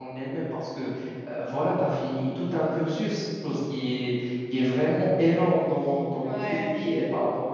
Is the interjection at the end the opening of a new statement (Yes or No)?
No